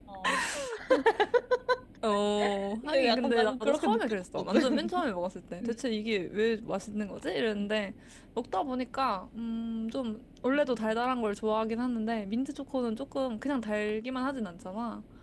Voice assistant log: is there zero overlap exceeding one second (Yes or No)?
No